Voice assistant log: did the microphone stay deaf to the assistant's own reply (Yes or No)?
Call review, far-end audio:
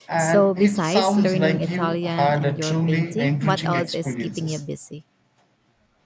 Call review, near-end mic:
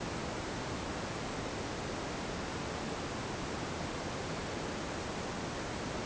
Yes